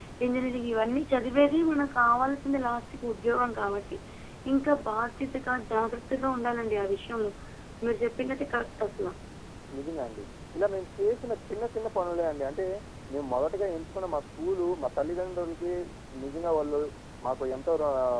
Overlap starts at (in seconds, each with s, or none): none